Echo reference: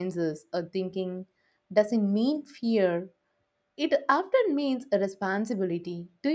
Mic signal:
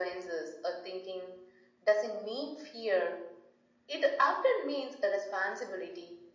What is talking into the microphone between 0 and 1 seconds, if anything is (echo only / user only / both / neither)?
echo only